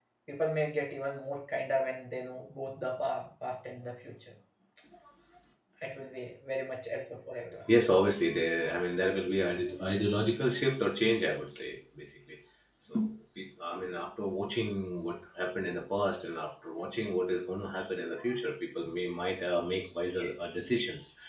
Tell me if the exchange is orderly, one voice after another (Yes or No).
Yes